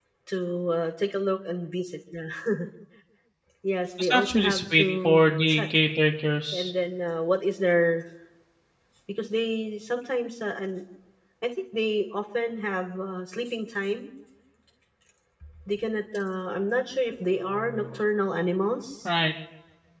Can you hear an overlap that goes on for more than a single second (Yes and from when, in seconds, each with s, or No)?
Yes, from 4.0 s